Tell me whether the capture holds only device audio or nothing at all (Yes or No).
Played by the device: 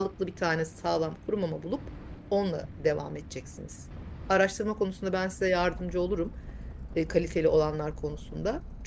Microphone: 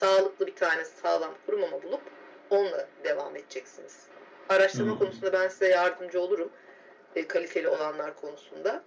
No